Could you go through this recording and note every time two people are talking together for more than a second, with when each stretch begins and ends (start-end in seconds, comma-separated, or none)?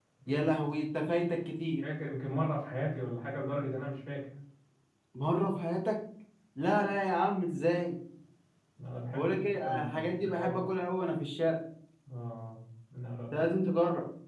9.2-10.6